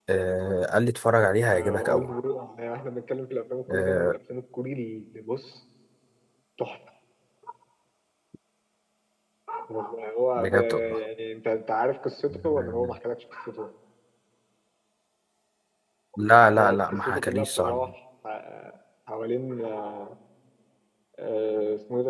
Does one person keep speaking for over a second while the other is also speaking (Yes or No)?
Yes